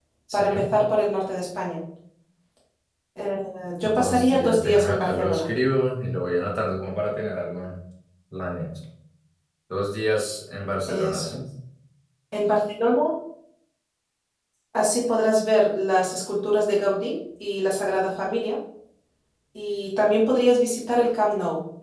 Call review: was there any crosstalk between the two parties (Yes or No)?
Yes